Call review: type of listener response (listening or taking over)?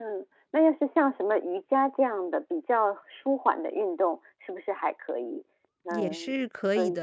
taking over